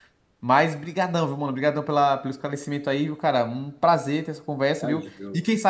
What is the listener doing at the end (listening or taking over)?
listening